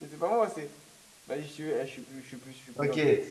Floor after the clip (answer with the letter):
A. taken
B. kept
A